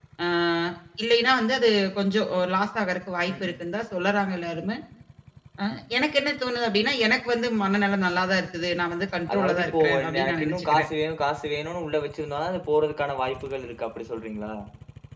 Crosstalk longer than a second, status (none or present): present